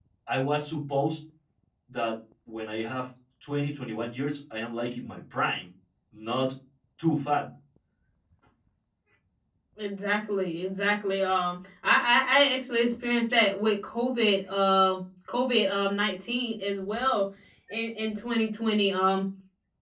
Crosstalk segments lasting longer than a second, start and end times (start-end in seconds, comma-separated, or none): none